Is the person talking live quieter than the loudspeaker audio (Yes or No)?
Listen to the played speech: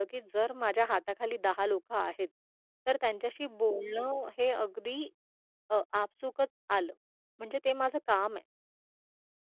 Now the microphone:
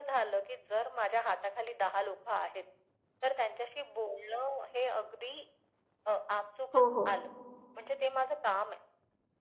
No